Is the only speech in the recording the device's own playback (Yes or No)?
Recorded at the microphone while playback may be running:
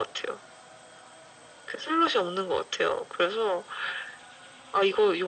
Yes